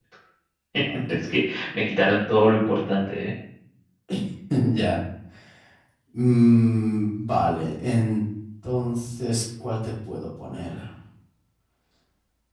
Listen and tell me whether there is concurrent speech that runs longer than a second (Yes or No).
No